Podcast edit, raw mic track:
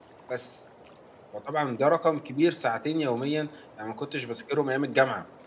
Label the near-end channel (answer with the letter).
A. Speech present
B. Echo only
A